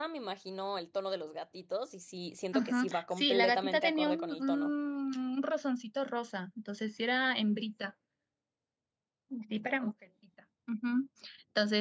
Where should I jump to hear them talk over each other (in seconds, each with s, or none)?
2.5 s